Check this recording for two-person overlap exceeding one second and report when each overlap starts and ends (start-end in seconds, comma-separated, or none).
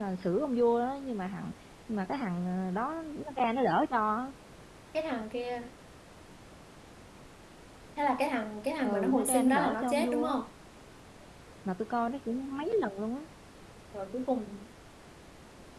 8.8-10.4